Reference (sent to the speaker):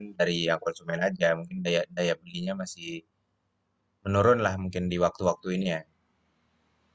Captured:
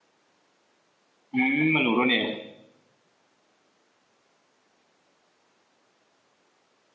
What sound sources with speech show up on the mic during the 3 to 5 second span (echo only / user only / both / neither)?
neither